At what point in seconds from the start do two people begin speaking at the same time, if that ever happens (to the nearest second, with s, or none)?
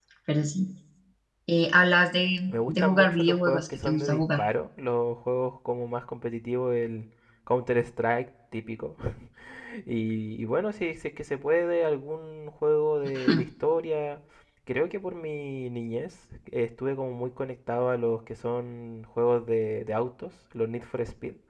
3 s